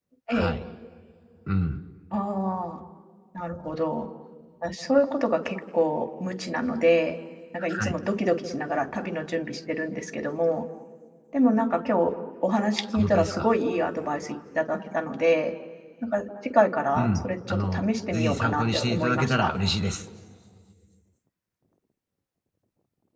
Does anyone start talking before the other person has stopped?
Yes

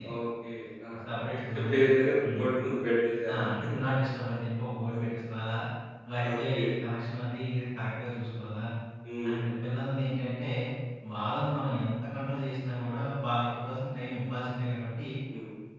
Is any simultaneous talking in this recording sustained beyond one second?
No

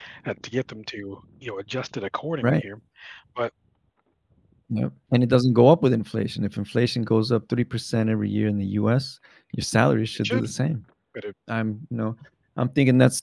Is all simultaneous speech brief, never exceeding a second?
Yes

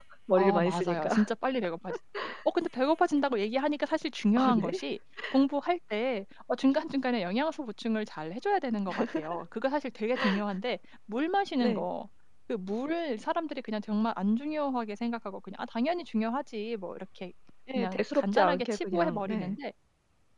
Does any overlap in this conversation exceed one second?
Yes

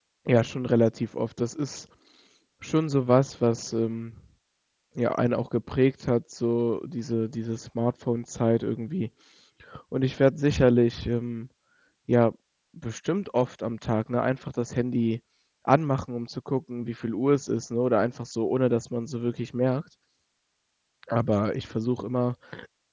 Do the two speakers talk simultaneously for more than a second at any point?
No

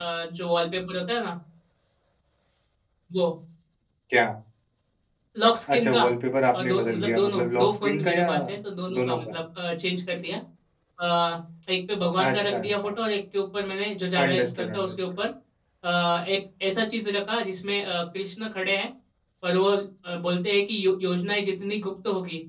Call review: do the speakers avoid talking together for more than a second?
No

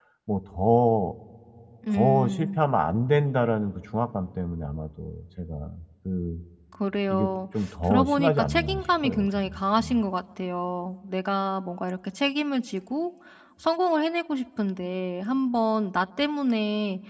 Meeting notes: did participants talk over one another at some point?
Yes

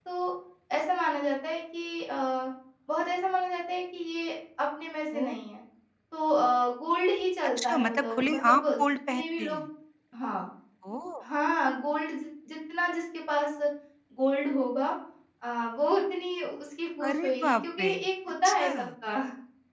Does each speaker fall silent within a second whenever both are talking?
No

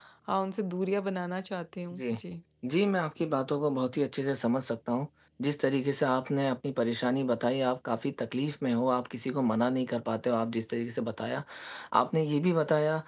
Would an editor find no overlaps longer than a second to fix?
Yes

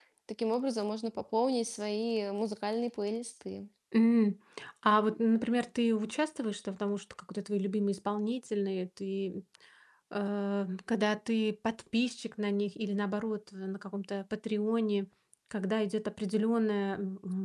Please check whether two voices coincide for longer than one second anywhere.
No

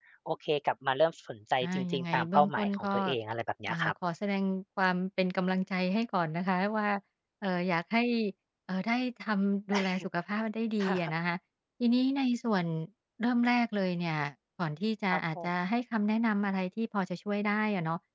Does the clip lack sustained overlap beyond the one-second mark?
No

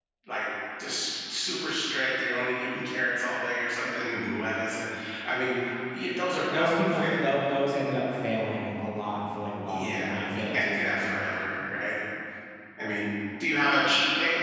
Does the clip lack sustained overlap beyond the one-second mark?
No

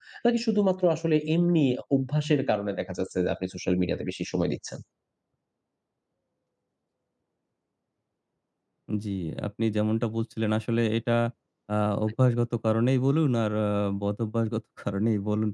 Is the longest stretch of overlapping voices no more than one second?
Yes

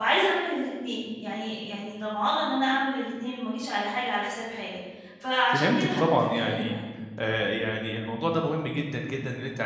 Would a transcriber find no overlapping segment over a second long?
No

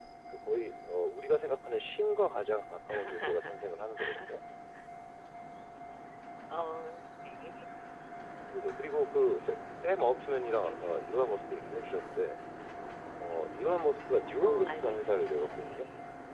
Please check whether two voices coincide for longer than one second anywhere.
Yes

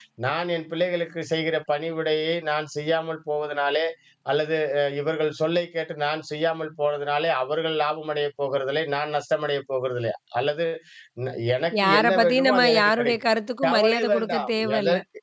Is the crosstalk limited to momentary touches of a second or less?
No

